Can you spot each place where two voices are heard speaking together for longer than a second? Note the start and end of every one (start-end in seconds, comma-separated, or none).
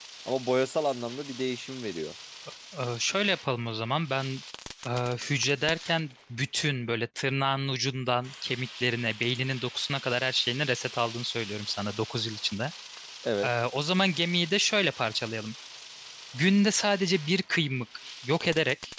none